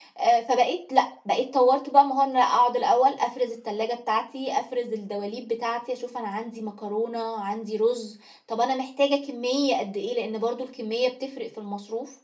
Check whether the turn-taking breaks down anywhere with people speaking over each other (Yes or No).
No